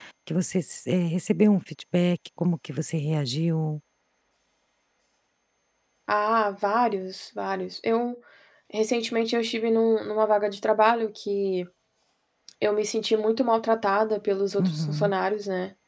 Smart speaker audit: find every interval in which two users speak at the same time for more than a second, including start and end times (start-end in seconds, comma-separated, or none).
none